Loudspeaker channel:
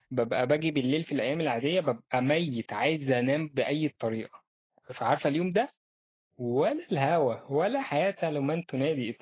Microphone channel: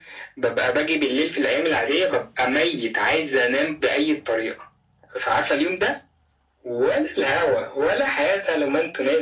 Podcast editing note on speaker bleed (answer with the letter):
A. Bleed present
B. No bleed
A